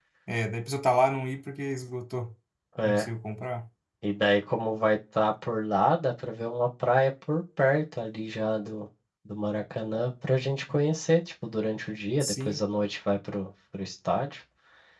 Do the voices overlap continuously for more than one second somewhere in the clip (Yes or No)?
No